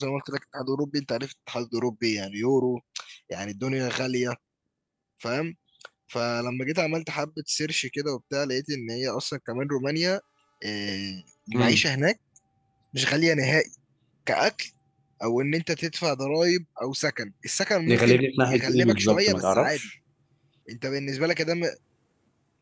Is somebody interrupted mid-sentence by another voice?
Yes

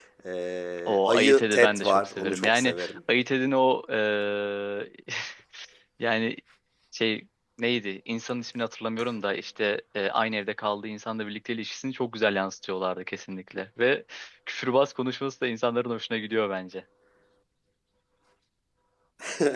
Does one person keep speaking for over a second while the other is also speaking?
Yes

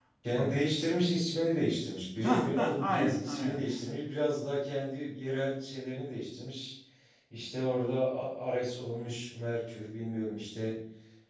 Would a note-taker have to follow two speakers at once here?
Yes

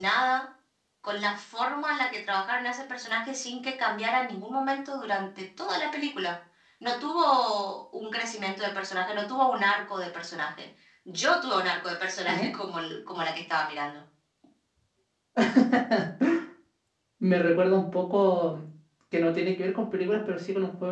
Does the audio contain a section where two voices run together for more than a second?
No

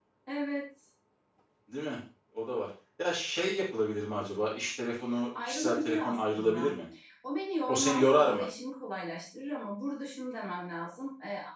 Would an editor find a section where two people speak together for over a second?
Yes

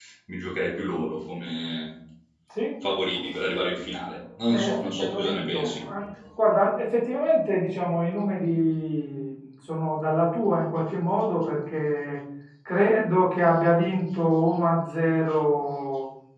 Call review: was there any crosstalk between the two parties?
Yes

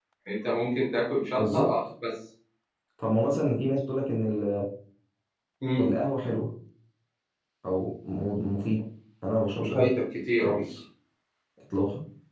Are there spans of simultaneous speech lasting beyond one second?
No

